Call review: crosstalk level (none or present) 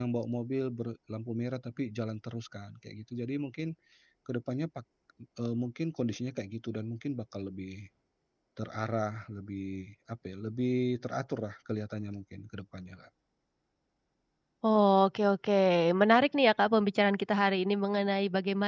none